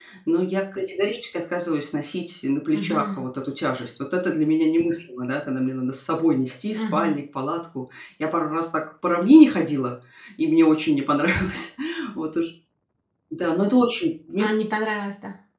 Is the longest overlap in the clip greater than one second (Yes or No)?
No